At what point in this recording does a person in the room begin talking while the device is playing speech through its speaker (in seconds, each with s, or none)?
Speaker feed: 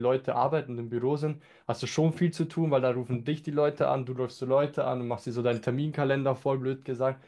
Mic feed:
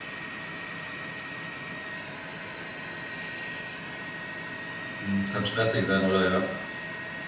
5.0 s